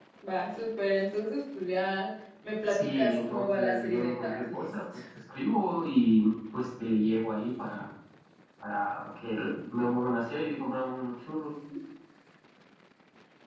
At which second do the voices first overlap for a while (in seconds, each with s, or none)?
2.7 s